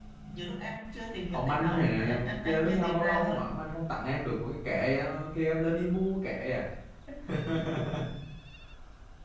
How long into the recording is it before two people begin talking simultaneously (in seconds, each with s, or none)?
1.3 s